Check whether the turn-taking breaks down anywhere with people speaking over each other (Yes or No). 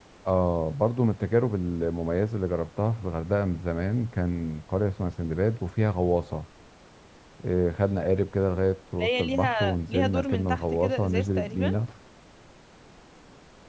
Yes